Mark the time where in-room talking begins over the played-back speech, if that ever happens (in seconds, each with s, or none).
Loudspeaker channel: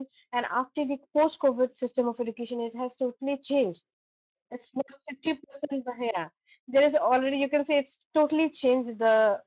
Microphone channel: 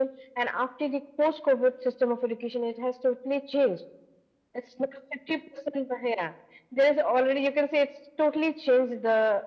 none